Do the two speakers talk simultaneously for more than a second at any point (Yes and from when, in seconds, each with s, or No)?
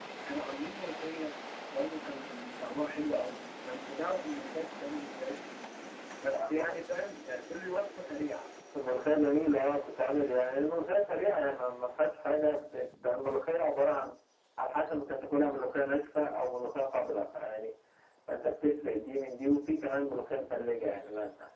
No